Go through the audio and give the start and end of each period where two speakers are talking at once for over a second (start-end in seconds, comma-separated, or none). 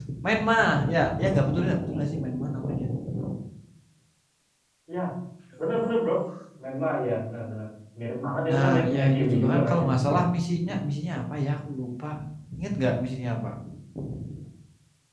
8.5-9.9